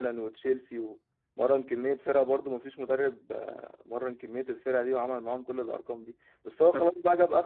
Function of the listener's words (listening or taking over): listening